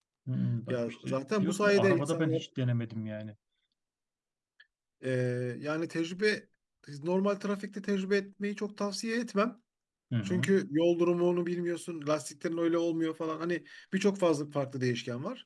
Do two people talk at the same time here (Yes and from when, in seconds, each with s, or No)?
Yes, from 0.7 s